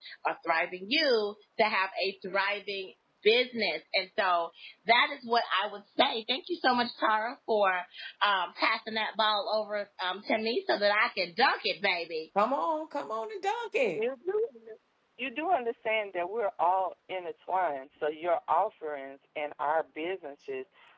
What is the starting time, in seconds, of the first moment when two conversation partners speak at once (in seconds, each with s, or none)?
none